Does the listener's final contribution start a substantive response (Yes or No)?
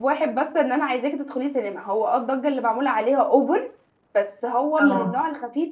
No